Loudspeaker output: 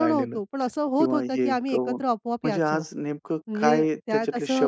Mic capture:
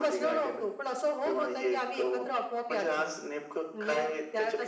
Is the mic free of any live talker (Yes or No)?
Yes